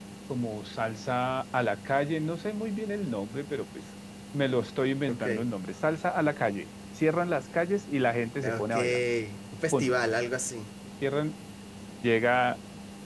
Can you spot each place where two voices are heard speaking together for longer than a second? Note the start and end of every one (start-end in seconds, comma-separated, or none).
none